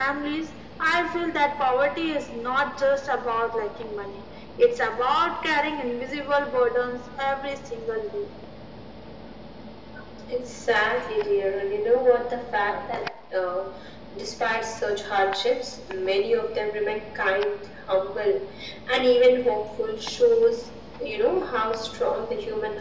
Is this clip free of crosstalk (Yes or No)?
Yes